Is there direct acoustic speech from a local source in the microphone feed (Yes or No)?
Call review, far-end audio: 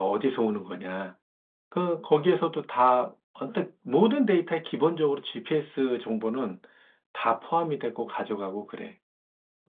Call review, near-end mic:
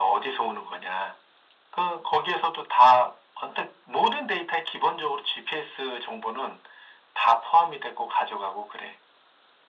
No